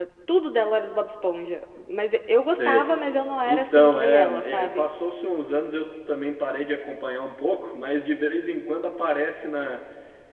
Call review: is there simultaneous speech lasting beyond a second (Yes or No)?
Yes